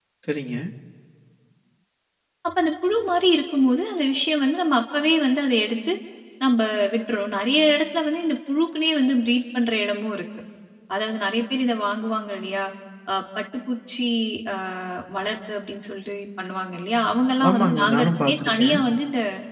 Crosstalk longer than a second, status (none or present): present